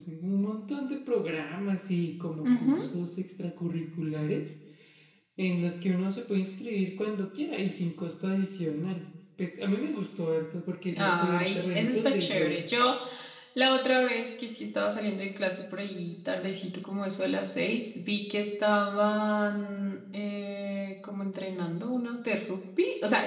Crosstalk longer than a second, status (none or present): present